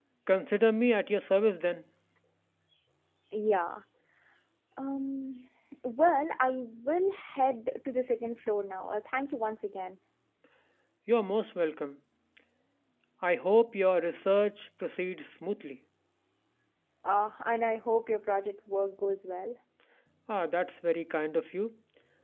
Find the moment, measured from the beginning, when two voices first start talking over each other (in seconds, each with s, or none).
none